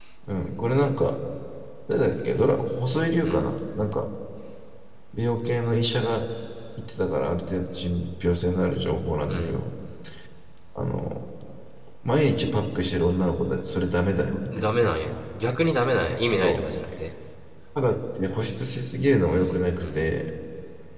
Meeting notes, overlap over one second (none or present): none